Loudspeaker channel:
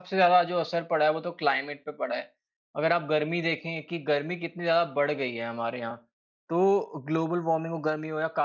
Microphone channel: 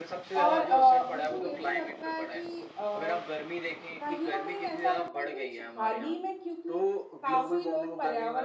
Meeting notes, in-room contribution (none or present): present